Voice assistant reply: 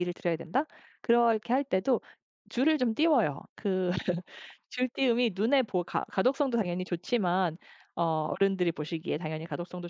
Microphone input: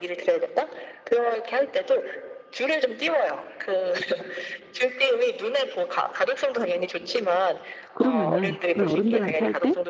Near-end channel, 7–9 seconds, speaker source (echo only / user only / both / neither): both